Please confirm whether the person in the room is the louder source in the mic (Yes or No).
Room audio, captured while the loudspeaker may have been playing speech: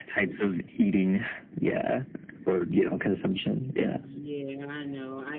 No